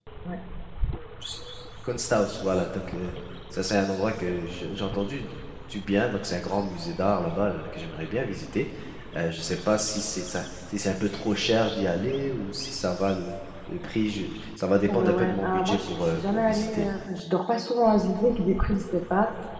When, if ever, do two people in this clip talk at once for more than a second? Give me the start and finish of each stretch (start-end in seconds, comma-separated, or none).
14.9-16.9